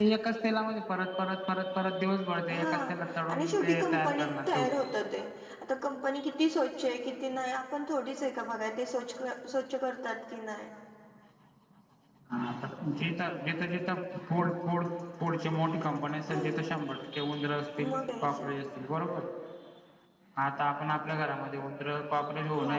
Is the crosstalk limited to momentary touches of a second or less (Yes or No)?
No